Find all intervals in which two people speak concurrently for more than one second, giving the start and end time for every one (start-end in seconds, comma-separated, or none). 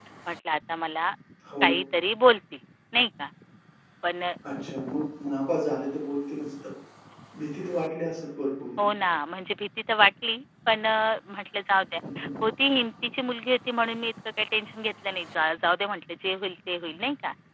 none